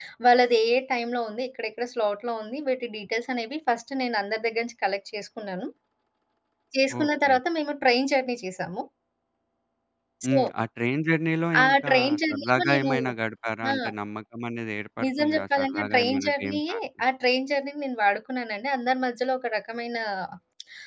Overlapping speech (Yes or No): Yes